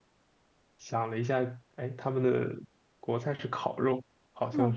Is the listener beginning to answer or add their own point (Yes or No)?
Yes